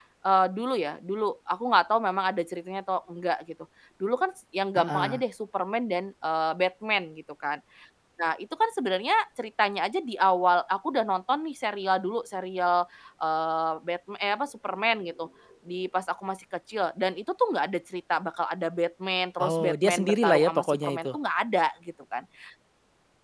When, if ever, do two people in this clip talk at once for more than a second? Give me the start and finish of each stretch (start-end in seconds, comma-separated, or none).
19.4-21.1